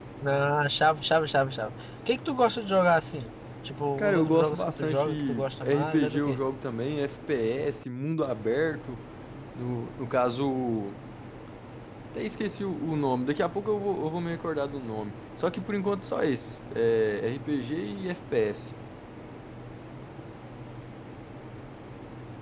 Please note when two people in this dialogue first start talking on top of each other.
4.0 s

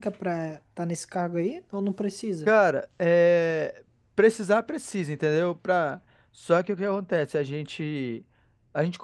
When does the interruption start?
none

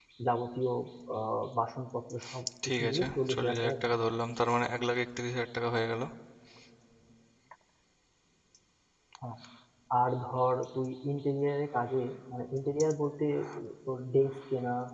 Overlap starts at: 2.6 s

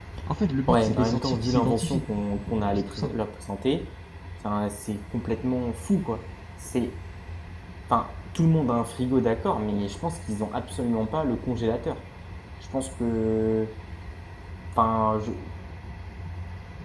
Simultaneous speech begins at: 0.7 s

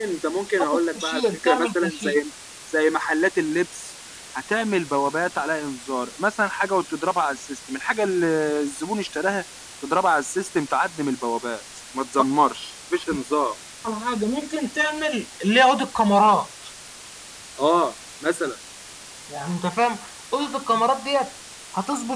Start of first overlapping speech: 0.9 s

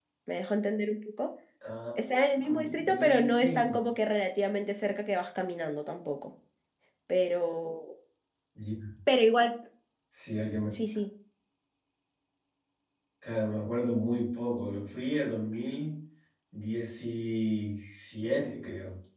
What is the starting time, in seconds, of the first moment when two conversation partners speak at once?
2.3 s

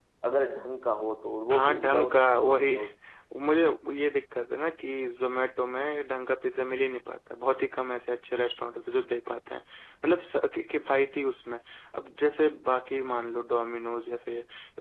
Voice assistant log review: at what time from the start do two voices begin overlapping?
1.5 s

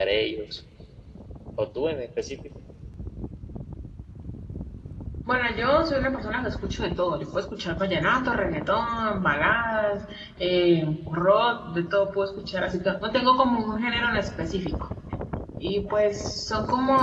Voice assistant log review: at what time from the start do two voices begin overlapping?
none

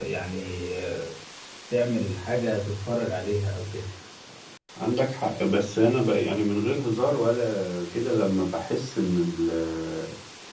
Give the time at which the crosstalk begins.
none

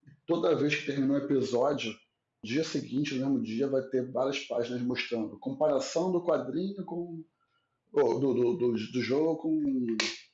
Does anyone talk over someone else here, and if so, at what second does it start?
none

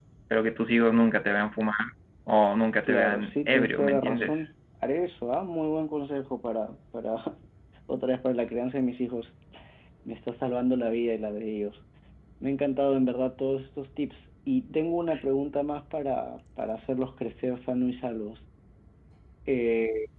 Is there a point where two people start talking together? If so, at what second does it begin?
2.8 s

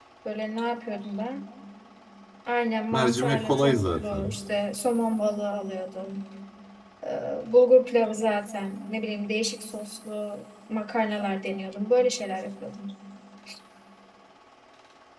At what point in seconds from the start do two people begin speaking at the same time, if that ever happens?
2.9 s

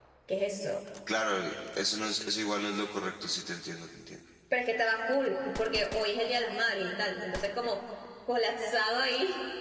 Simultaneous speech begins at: none

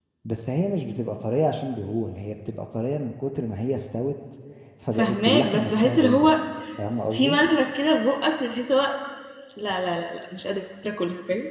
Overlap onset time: 5.0 s

